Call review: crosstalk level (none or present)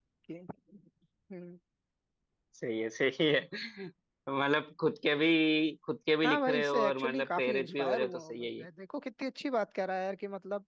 present